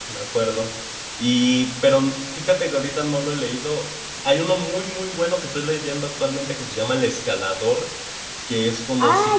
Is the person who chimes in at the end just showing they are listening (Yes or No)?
No